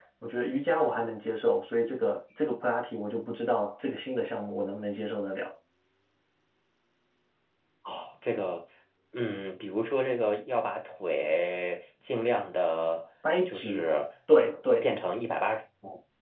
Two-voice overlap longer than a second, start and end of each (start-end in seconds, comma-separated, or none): none